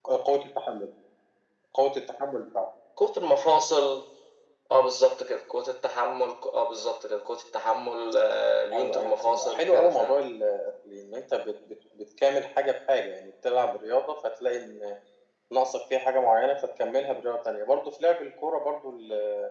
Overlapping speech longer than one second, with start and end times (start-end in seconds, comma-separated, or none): 8.7-10.2